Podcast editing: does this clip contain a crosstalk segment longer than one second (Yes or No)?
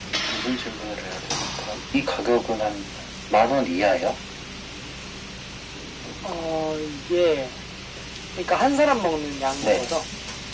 No